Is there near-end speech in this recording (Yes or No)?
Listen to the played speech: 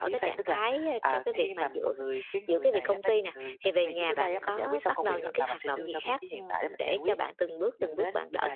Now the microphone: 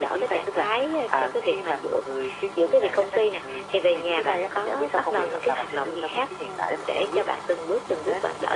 No